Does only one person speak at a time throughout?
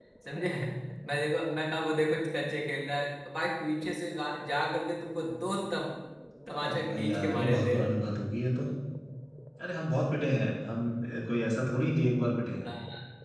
No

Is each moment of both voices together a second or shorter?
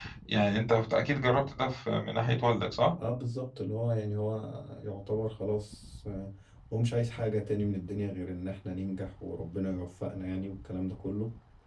Yes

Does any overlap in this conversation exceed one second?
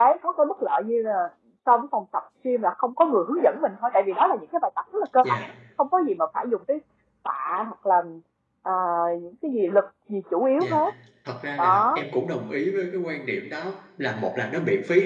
No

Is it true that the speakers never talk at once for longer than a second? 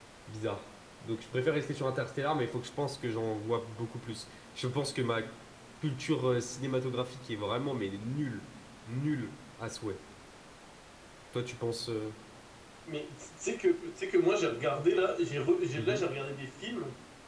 Yes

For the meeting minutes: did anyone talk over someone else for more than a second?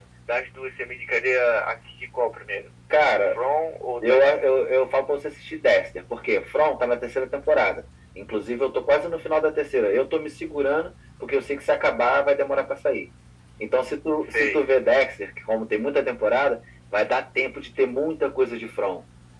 No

